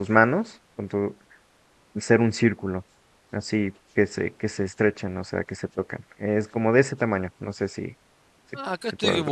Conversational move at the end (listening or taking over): taking over